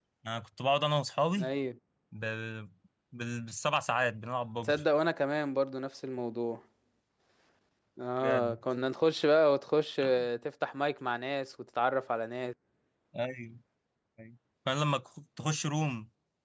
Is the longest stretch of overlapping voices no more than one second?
Yes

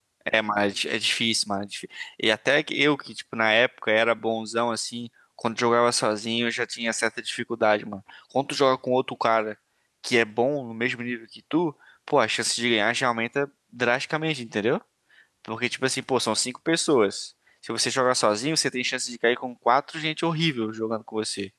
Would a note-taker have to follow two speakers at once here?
No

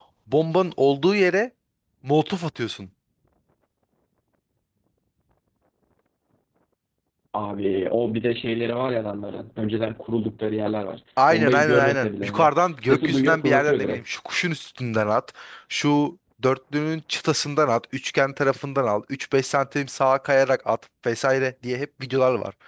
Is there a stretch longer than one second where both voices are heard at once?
Yes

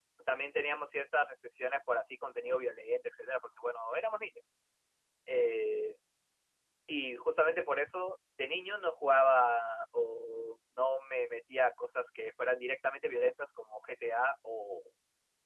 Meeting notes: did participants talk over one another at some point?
No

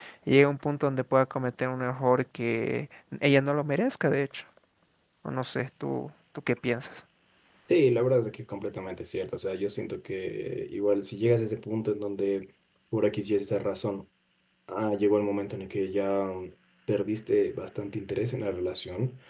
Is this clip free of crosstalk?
Yes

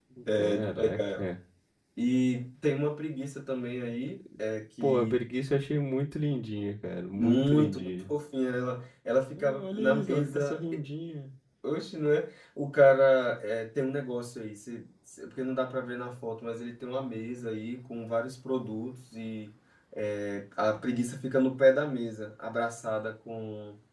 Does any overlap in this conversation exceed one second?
Yes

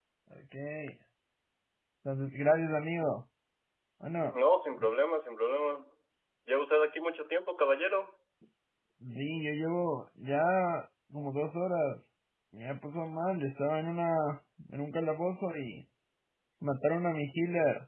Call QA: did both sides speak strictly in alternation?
Yes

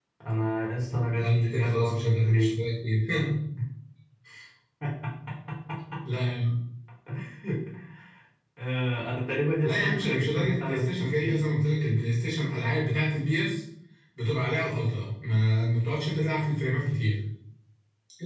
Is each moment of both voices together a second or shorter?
No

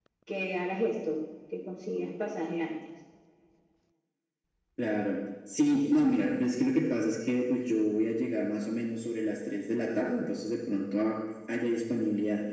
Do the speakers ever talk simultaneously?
No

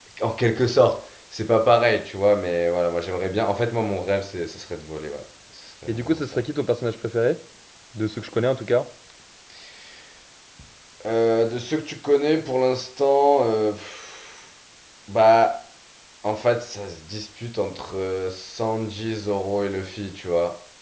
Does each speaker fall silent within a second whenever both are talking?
Yes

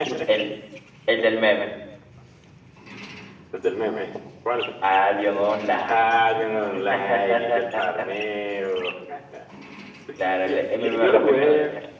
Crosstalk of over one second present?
Yes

